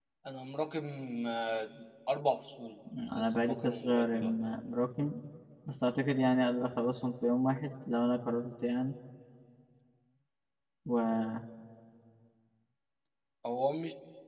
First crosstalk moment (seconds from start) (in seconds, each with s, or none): 2.9 s